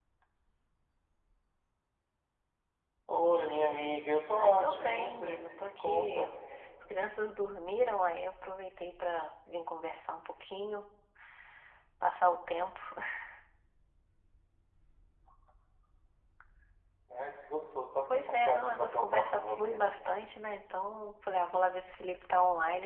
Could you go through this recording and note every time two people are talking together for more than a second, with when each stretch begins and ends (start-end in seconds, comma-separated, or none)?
4.3-6.3, 18.1-19.8